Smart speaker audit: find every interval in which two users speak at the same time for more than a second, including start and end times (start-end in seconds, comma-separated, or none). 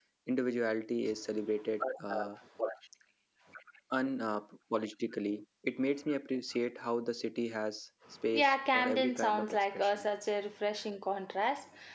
8.3-10.1